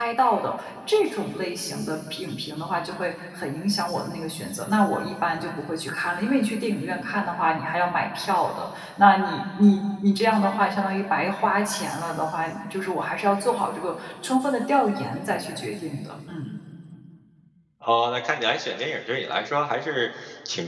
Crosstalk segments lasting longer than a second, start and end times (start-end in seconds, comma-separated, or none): none